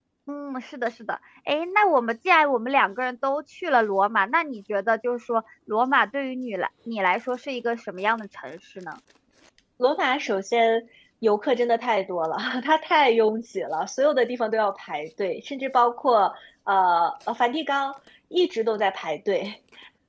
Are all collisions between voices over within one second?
Yes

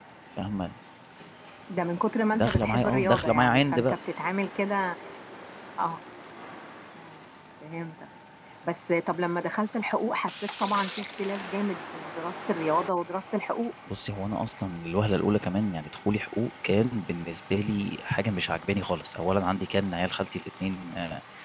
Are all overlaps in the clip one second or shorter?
No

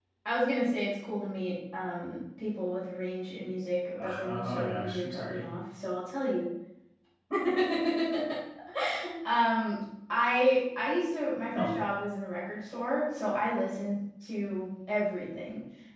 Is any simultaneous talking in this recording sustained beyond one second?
Yes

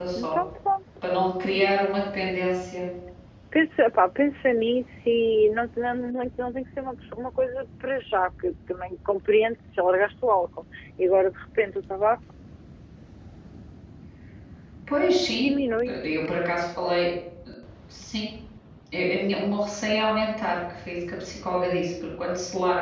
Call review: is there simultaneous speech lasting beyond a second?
No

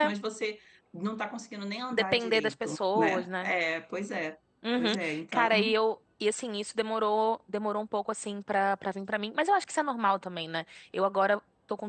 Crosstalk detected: Yes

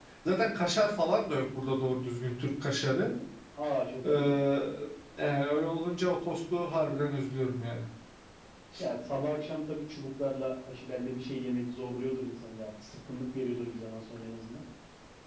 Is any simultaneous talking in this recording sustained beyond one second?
No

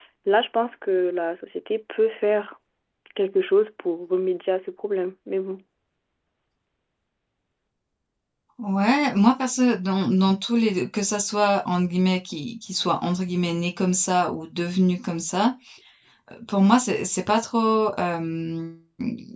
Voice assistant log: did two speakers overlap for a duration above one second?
No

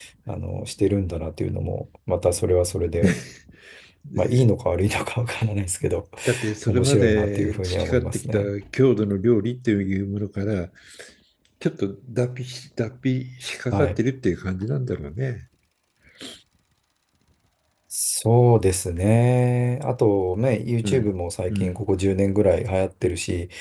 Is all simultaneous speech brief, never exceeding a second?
No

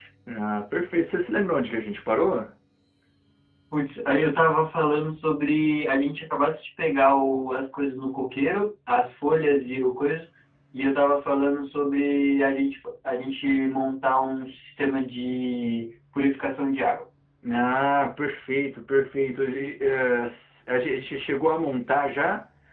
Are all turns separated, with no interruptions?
Yes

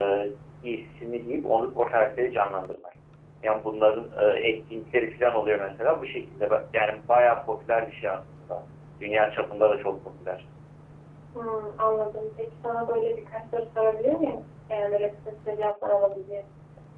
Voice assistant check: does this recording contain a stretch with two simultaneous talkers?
No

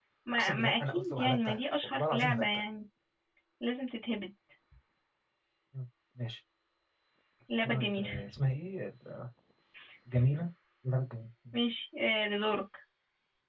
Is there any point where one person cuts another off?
Yes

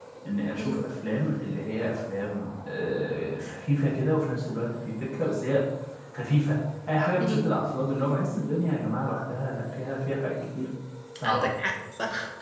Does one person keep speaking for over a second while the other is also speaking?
No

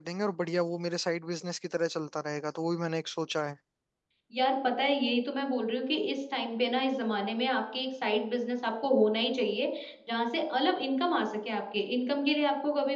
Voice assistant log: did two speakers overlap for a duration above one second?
No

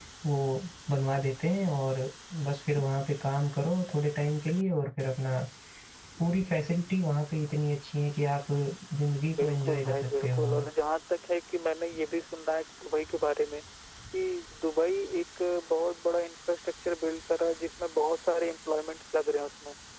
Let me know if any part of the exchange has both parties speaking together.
Yes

